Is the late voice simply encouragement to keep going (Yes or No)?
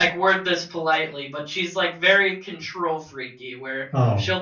Yes